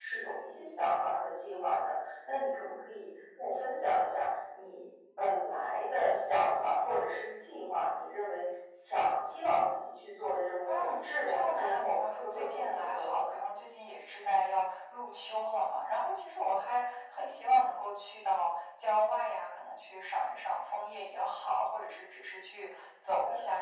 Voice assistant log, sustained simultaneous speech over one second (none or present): present